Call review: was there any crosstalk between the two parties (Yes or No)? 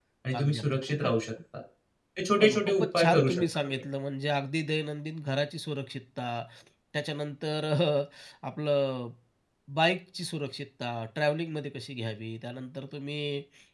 Yes